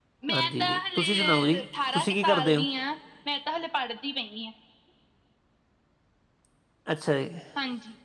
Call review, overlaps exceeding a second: present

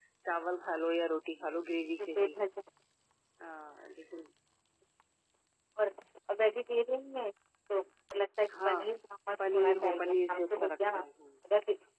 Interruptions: present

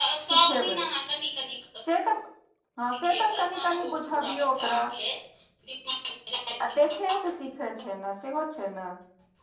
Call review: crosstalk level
present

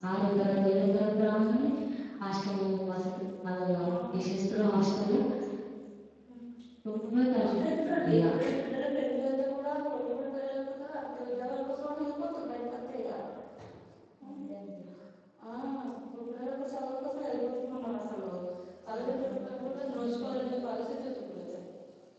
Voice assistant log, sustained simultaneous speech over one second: present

